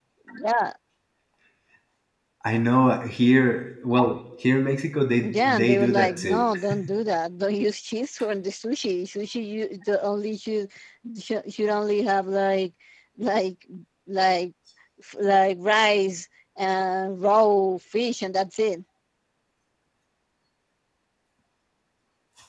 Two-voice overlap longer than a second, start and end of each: 5.2-6.4

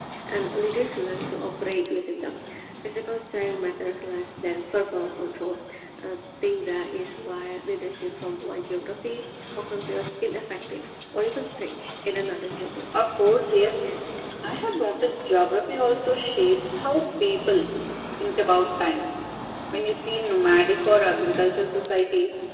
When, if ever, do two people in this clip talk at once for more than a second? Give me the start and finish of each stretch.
none

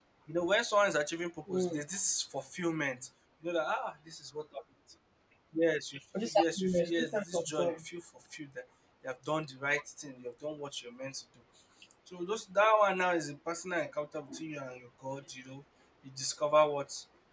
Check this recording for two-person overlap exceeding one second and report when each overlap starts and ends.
6.2-7.8

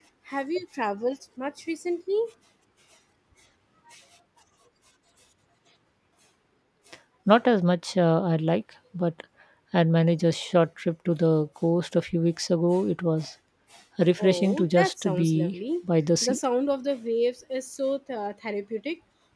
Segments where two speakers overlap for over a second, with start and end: 14.2-15.6

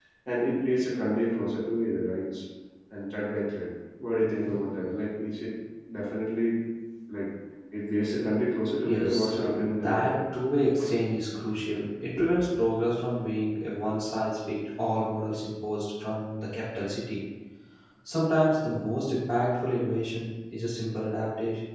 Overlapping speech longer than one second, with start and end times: 8.8-10.2

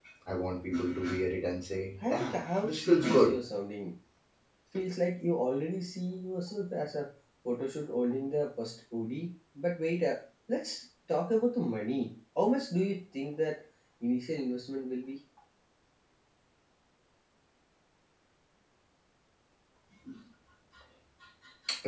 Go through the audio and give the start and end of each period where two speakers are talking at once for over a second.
2.1-3.3

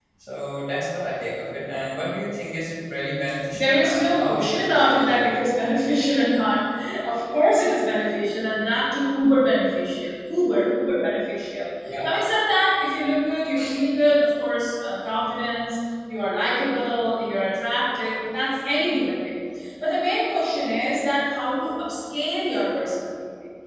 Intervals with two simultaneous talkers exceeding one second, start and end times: 3.5-5.2

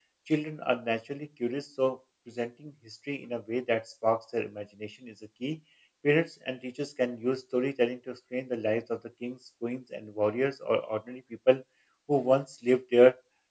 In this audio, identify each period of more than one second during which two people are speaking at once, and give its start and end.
none

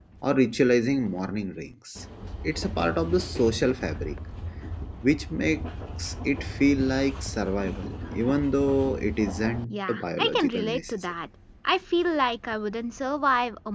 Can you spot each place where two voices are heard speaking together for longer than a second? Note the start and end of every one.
9.7-11.1

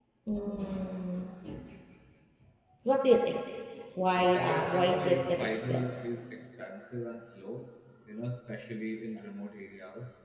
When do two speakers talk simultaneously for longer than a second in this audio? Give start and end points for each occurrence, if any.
4.3-5.8

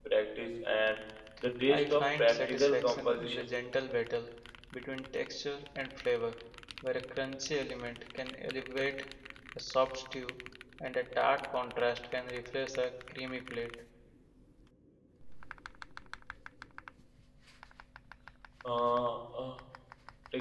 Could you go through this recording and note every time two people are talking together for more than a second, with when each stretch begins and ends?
1.7-3.4

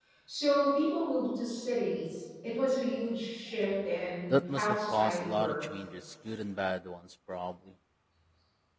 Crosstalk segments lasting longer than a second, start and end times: 4.3-5.6

